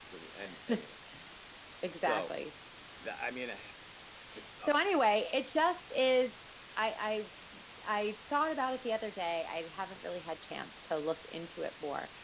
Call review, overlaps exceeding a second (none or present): none